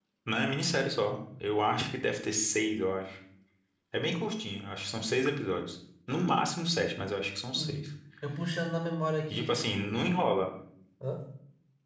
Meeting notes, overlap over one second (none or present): none